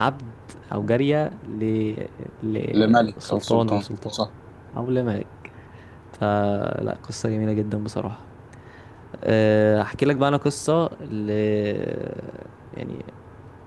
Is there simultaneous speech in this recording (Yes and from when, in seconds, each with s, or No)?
Yes, from 2.7 s